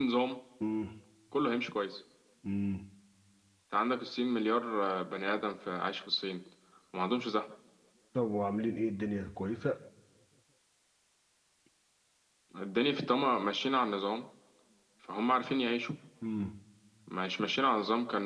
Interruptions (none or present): none